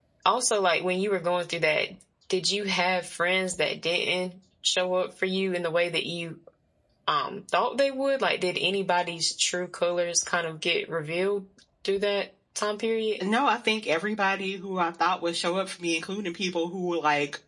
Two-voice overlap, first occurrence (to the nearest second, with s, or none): none